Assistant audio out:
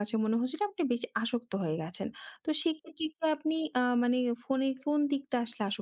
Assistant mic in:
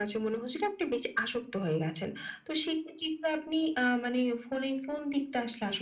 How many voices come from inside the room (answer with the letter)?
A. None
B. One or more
A